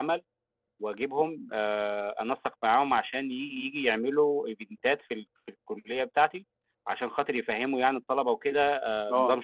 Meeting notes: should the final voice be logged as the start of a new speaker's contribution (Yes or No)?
No